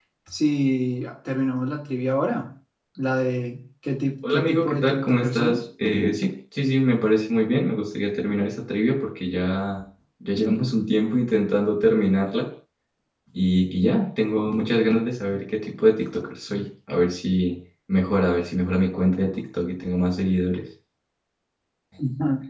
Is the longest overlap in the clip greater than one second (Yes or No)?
Yes